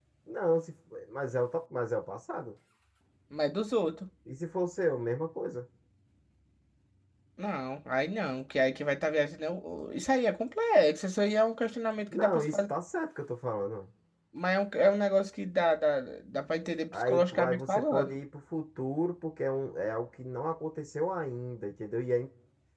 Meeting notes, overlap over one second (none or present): present